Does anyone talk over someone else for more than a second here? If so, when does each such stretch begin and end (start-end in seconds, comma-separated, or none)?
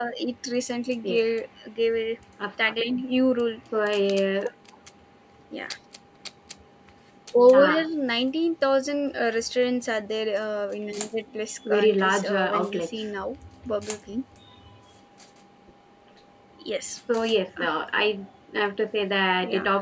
11.7-12.9